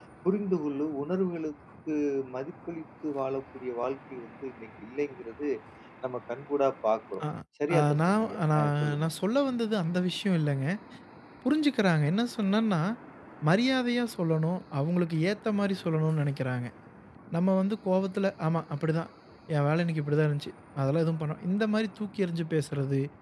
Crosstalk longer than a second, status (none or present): present